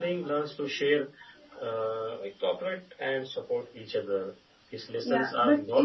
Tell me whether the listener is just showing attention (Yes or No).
No